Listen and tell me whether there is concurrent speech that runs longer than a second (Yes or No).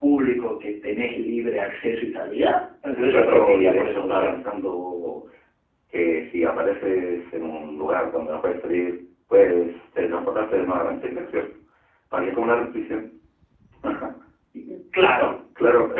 Yes